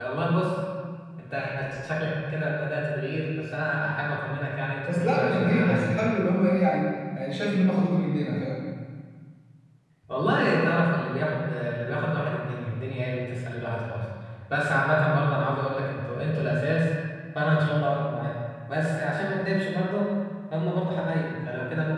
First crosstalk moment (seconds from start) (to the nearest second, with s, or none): 5 s